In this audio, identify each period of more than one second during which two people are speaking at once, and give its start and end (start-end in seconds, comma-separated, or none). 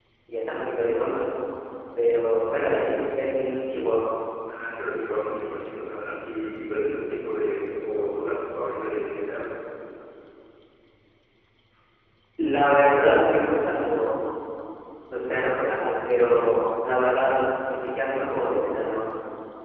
none